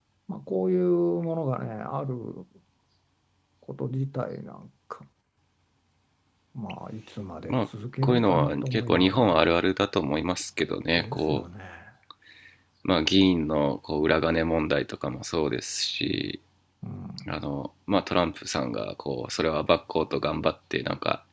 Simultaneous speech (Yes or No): Yes